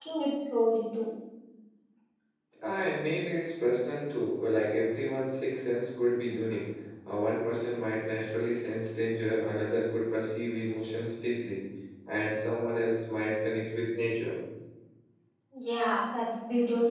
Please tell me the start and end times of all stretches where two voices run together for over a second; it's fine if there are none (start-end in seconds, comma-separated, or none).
none